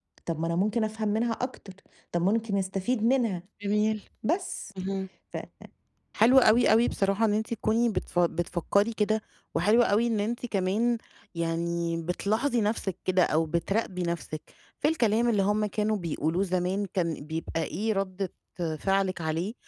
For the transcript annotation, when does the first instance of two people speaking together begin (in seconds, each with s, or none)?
none